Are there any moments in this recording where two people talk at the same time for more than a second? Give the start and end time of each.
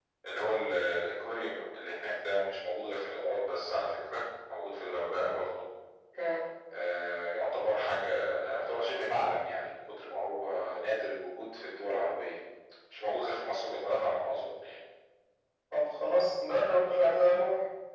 none

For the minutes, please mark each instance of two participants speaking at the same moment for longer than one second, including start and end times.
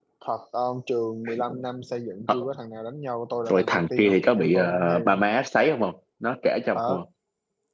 3.5-5.2

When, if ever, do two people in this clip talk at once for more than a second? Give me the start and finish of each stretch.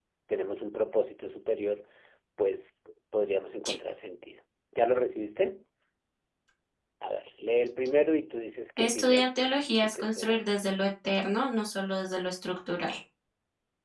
8.8-10.5

